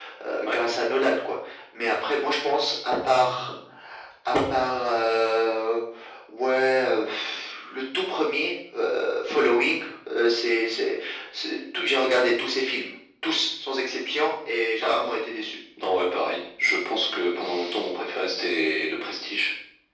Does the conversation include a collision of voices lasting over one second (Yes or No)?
No